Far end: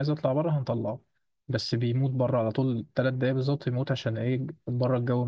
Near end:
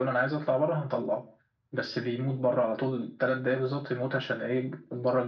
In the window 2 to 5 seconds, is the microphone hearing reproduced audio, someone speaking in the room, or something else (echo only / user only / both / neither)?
echo only